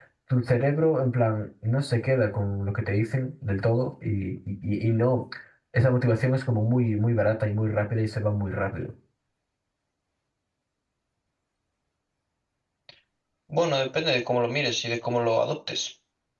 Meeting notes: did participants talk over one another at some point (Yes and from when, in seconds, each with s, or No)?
No